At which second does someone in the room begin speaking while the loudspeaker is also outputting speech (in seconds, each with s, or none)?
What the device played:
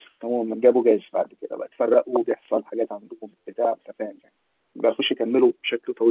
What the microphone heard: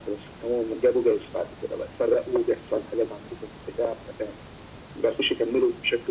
none